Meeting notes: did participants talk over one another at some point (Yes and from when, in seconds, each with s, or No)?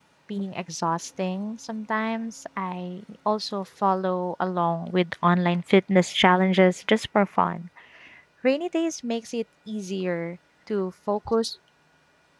No